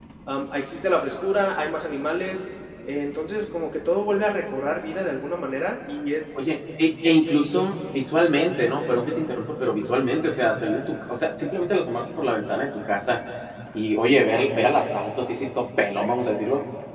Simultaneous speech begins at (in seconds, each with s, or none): none